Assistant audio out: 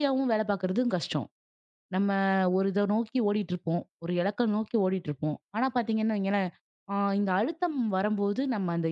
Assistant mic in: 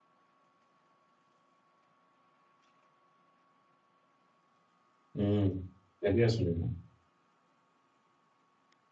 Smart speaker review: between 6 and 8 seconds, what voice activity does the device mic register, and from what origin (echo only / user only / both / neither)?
user only